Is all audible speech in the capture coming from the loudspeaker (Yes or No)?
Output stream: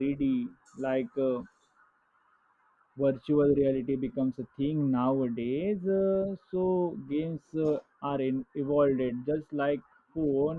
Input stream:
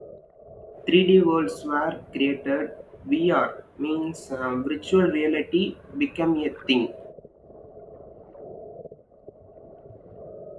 No